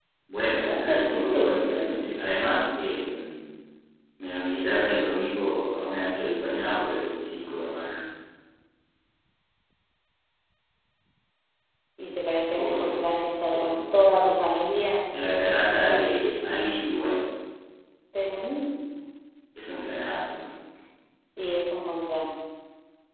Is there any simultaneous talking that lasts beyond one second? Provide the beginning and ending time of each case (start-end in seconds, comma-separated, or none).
0.6-2.3